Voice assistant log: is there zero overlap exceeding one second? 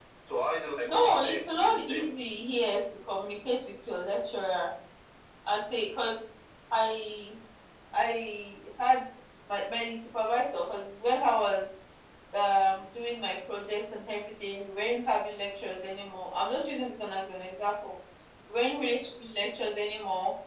No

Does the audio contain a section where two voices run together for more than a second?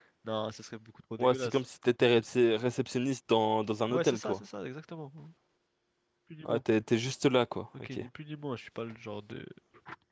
No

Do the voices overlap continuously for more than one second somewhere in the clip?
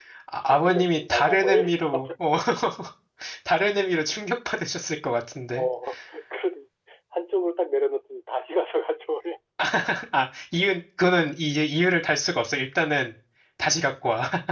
Yes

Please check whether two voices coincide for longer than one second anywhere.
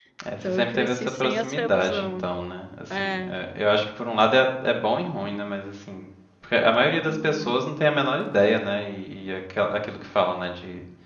Yes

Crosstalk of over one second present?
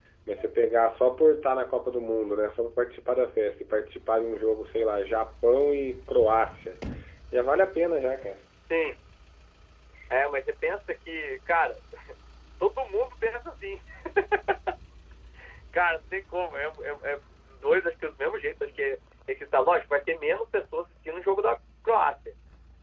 No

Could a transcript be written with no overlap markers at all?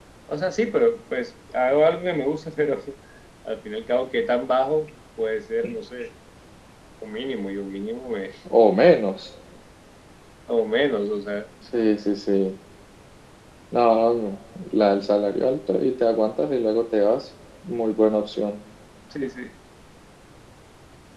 Yes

